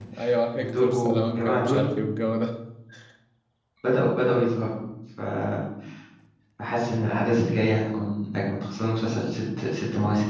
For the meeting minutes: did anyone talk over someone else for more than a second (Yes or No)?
Yes